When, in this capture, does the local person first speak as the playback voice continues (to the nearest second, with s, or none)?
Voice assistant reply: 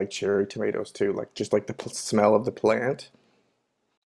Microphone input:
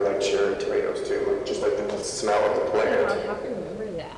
1 s